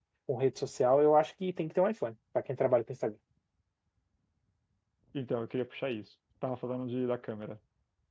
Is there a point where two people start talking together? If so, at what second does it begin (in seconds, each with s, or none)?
none